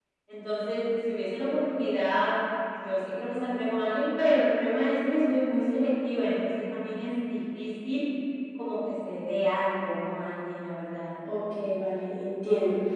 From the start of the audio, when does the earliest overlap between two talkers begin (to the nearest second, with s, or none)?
none